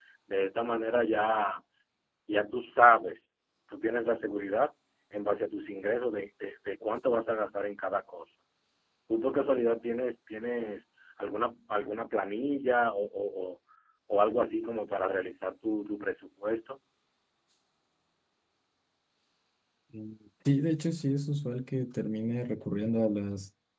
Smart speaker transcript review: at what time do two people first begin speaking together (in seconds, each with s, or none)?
none